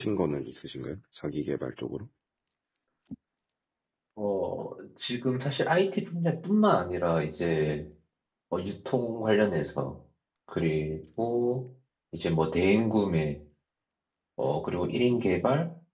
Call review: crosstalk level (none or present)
none